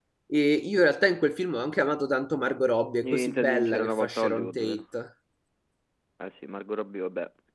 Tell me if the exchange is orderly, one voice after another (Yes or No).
No